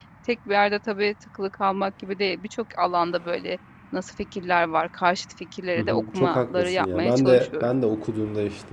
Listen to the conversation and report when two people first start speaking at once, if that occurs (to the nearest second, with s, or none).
6 s